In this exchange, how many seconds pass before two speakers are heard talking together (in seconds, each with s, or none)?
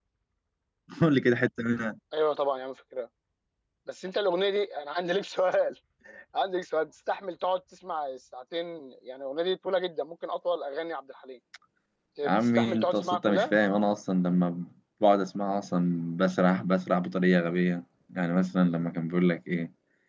12.2 s